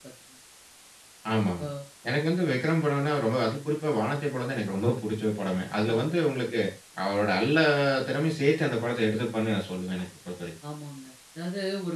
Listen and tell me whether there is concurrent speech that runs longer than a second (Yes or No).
No